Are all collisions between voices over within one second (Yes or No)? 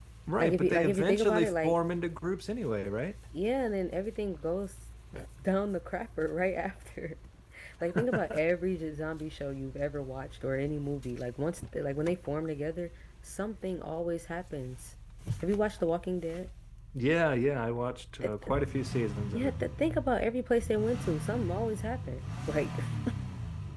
No